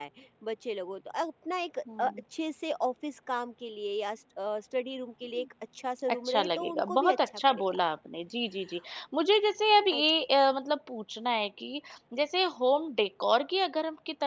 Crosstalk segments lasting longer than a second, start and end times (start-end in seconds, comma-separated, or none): 6.1-7.8